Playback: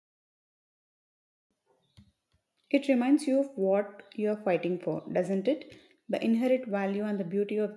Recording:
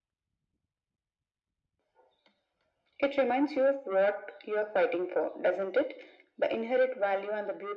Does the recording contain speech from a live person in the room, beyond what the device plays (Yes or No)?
No